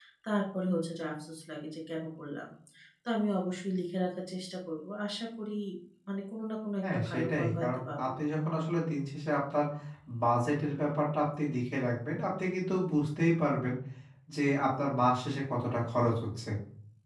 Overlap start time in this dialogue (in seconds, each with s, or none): 6.8 s